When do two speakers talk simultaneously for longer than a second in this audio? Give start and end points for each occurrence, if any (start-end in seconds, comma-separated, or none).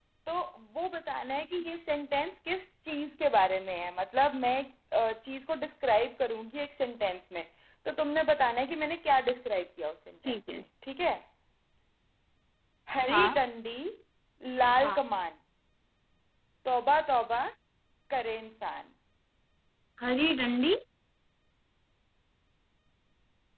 none